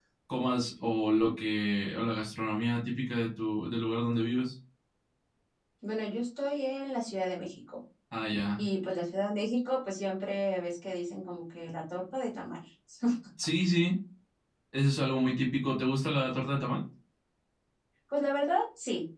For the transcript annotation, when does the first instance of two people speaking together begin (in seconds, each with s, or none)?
none